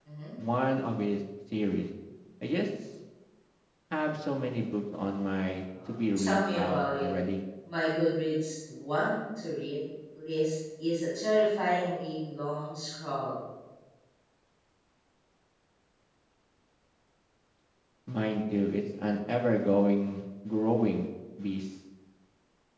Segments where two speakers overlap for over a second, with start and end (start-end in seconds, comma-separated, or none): 5.9-7.1